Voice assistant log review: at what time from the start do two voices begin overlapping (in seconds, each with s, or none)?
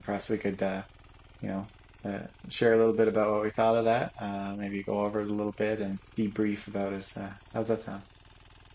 none